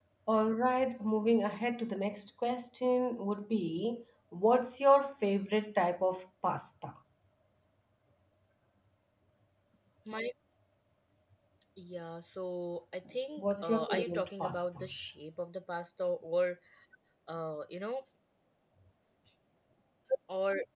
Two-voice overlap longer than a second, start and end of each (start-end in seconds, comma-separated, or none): 13.4-14.8